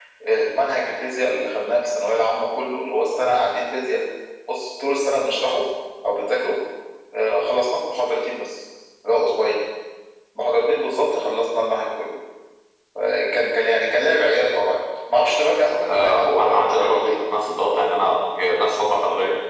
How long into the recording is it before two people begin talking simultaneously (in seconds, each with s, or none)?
15.9 s